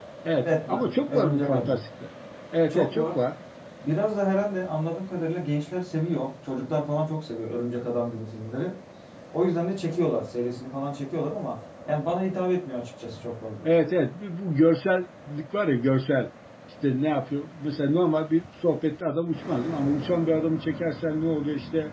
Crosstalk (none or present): present